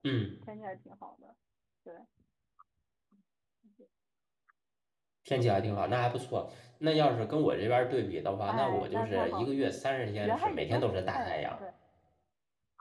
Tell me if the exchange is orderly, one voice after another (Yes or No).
No